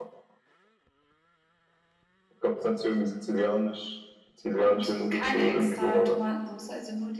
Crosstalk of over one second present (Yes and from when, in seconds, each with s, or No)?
Yes, from 4.5 s